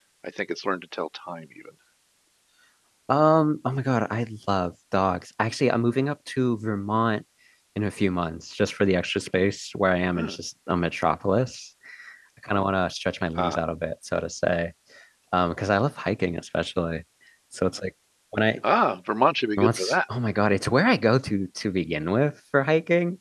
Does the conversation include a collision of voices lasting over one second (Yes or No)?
No